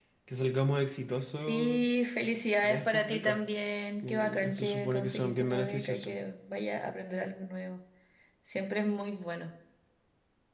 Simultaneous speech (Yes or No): Yes